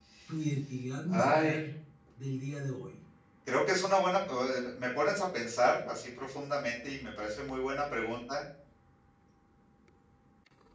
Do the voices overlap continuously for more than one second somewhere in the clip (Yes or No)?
No